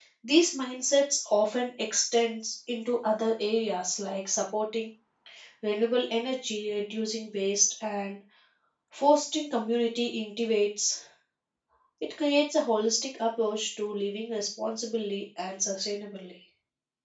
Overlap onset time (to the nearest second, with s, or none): none